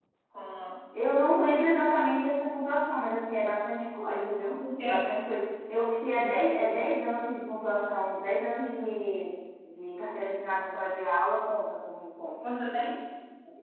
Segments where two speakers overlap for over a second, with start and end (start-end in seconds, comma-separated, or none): none